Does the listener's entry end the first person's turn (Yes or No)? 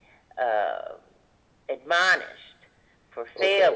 Yes